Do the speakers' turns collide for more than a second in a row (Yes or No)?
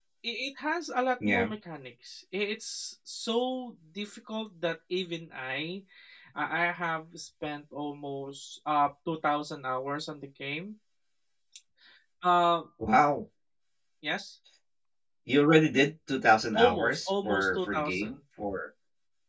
Yes